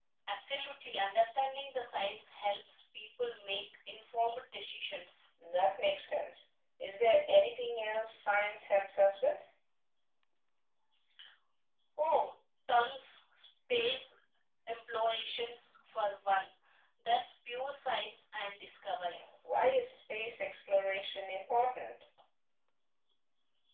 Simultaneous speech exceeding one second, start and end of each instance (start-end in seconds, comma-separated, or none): none